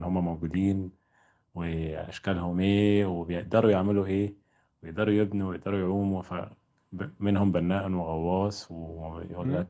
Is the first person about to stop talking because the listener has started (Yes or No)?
No